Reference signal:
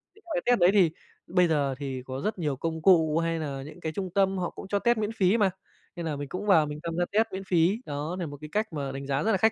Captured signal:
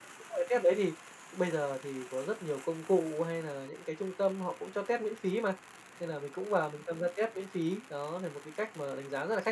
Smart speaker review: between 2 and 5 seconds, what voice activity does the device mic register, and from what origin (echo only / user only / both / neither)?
echo only